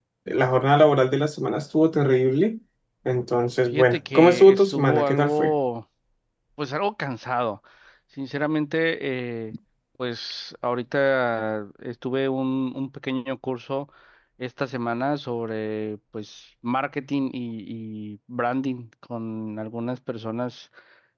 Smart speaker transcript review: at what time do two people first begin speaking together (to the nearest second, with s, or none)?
4 s